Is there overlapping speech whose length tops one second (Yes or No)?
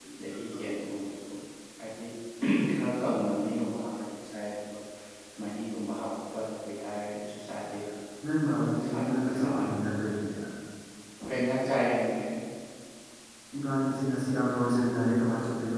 Yes